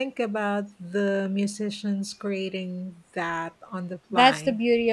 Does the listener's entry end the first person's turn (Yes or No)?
Yes